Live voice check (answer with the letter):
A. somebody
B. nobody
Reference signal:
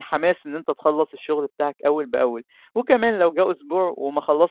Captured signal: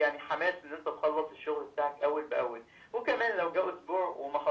B